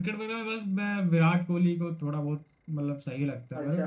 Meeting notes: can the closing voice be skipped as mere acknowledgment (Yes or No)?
No